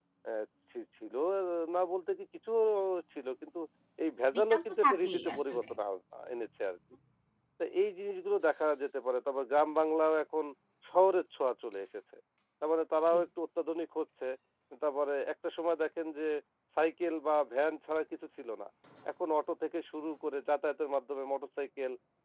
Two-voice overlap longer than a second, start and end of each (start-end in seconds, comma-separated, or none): 4.3-5.6